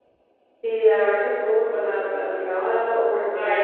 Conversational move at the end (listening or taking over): taking over